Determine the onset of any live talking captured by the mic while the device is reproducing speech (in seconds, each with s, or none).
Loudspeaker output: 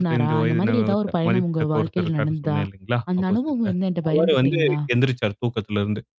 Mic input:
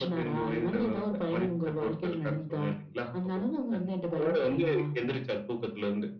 none